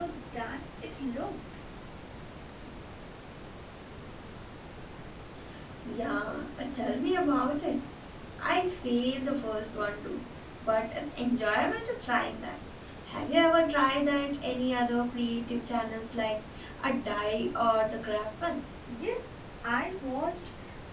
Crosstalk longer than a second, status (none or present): none